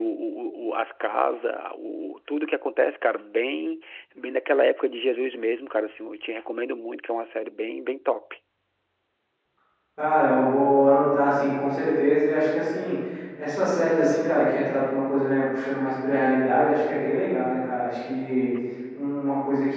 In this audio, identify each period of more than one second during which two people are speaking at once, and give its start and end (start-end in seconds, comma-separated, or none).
none